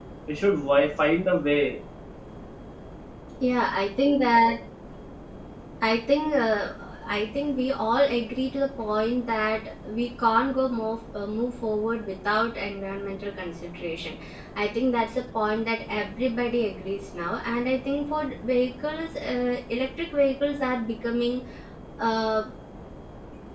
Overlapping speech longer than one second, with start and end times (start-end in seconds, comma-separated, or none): none